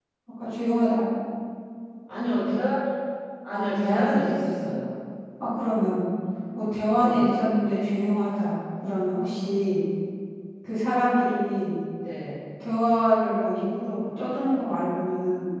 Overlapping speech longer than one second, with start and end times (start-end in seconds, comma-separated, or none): 3.5-4.8